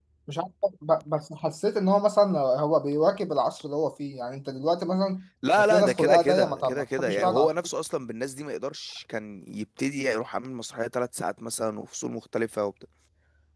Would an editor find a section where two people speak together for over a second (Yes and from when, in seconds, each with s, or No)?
Yes, from 5.4 s